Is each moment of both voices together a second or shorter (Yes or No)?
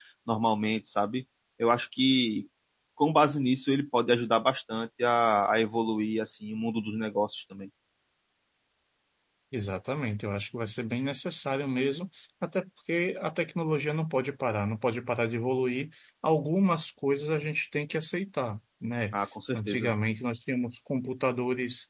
Yes